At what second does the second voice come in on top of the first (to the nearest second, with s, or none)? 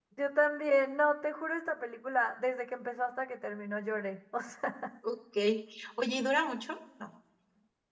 none